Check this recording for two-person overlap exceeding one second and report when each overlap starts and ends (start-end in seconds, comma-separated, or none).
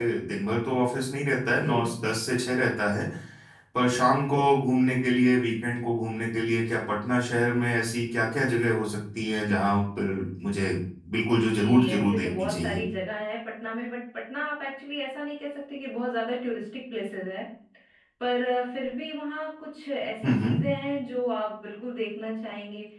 11.5-12.8